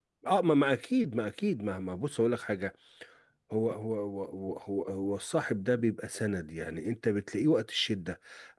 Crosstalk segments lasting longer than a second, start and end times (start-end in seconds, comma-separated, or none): none